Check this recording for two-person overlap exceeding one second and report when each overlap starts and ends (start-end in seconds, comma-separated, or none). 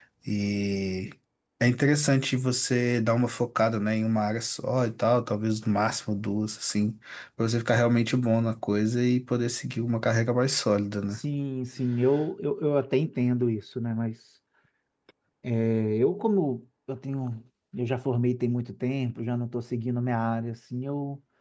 none